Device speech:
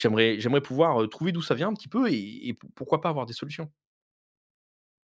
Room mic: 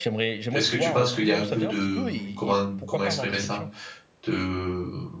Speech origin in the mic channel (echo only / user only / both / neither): both